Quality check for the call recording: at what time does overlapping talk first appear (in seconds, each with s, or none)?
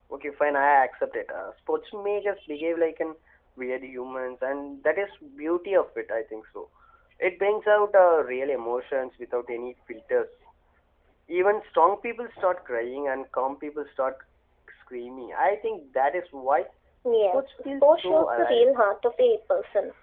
17.2 s